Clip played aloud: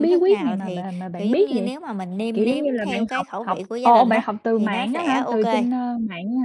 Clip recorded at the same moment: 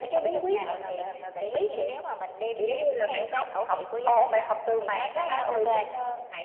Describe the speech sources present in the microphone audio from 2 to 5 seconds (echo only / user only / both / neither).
echo only